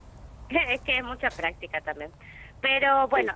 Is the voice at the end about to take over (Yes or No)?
No